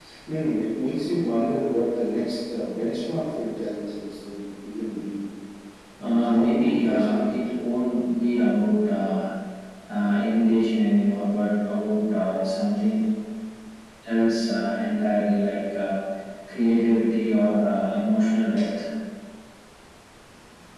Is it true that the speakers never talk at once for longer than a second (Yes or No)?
No